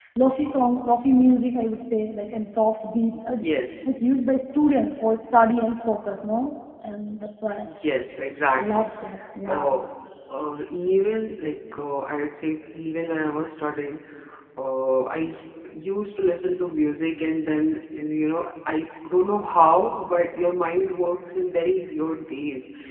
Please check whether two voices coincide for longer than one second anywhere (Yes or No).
No